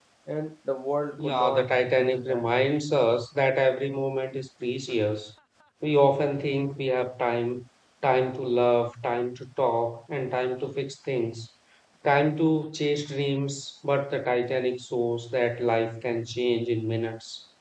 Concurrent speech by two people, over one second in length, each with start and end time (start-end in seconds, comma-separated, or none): 1.2-2.5